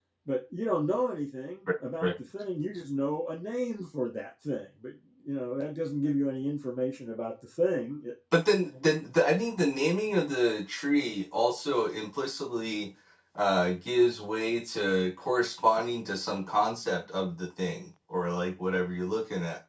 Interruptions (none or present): none